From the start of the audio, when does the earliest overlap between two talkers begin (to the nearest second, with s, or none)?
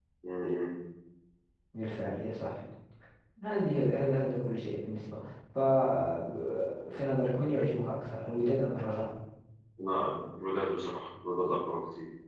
none